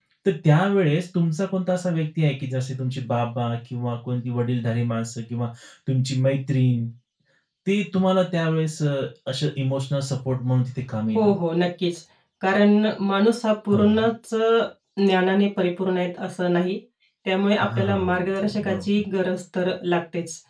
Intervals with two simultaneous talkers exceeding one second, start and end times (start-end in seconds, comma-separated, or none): 17.6-18.9